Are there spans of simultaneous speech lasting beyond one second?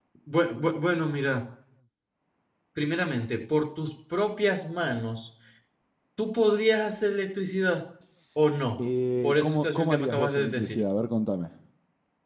Yes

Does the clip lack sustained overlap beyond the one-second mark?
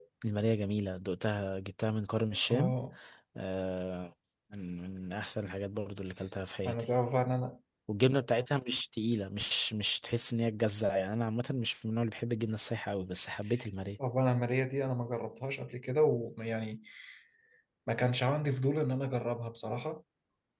Yes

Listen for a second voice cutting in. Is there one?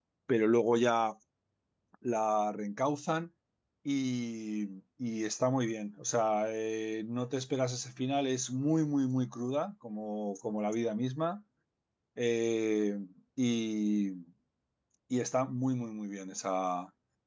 No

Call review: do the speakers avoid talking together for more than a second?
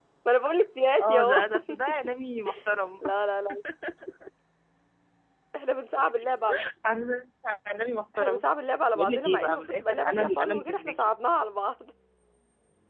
No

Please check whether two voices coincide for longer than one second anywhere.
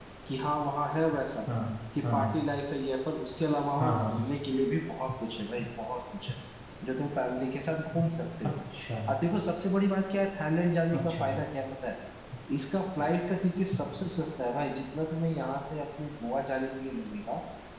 No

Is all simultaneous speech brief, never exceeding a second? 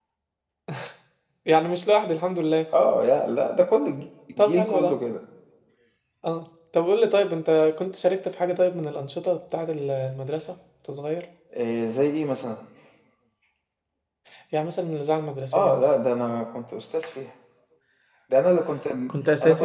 Yes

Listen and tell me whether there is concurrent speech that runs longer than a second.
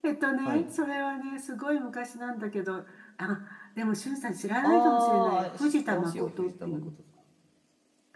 Yes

